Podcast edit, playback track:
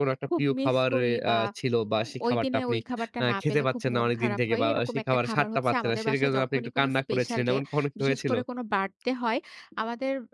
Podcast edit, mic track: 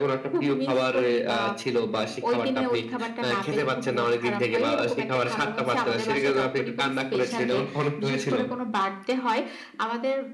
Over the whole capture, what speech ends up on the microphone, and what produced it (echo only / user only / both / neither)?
echo only